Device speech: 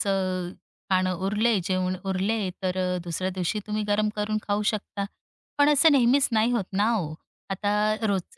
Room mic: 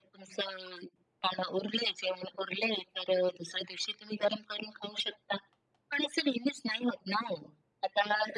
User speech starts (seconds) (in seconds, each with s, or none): none